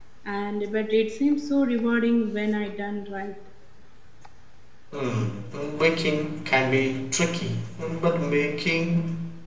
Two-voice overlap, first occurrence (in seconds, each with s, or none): none